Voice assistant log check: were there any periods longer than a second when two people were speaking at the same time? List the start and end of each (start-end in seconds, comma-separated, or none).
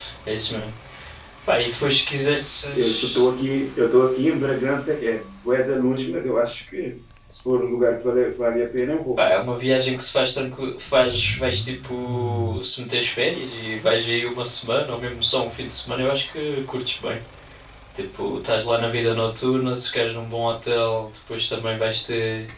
none